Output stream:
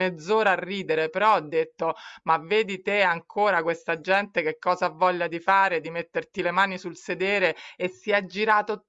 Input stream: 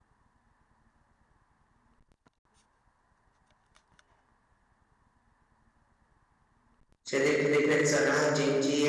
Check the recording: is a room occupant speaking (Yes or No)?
Yes